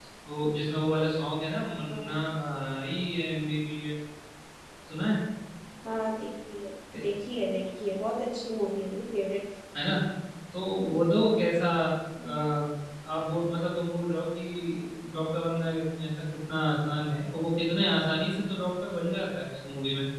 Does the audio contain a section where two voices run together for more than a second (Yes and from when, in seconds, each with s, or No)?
No